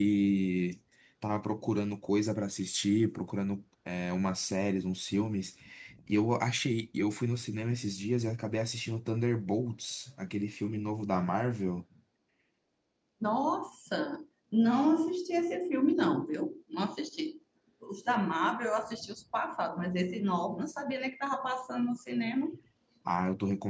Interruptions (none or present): none